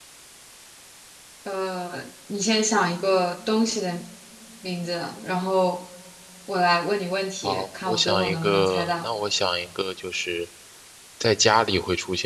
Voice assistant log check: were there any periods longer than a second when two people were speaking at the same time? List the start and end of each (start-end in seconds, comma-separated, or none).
7.4-9.1